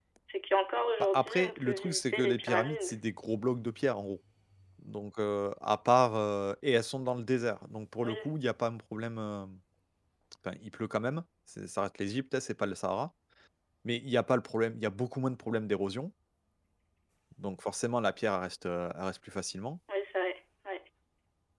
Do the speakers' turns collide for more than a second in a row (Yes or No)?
Yes